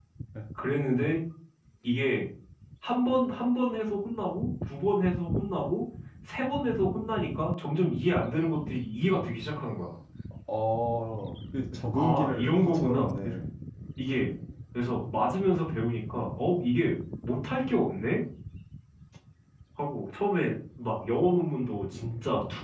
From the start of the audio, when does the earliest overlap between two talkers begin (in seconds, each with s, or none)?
11.9 s